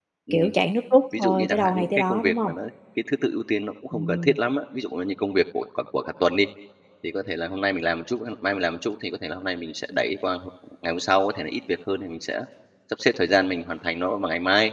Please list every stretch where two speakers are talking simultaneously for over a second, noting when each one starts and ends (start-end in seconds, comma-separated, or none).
1.2-2.5